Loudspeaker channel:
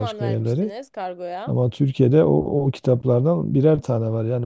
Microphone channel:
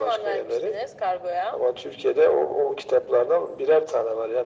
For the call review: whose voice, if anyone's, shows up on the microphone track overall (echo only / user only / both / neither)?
echo only